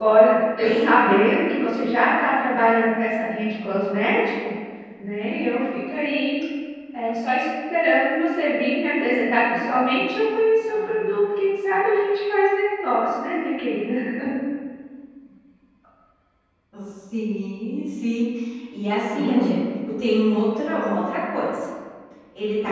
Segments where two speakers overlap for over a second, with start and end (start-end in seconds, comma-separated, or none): none